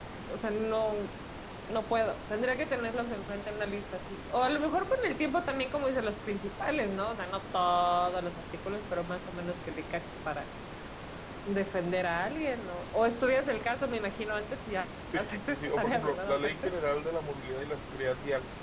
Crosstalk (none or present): present